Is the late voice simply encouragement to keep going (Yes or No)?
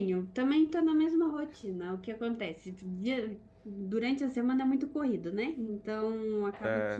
Yes